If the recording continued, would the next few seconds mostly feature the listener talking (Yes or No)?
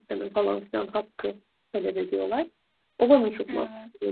No